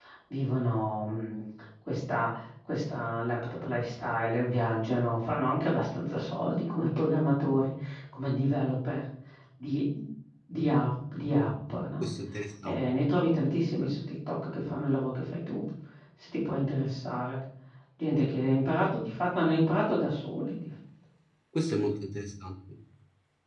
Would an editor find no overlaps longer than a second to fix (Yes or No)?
Yes